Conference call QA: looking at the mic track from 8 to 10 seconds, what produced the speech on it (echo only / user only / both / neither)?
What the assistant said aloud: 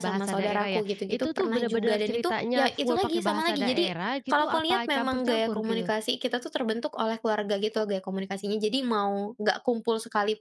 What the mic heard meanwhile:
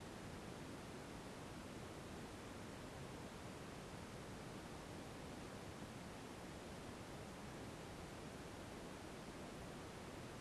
neither